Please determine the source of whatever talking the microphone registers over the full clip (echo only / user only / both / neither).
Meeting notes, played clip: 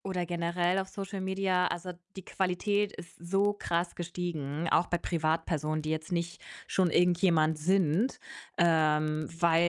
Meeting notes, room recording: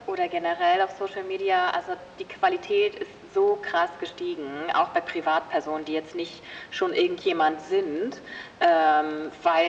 echo only